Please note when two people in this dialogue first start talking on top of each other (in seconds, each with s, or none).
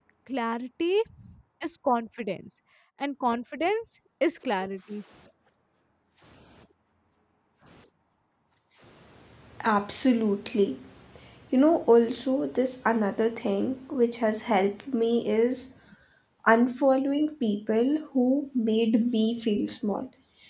none